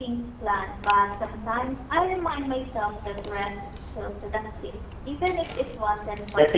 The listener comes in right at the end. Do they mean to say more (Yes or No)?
Yes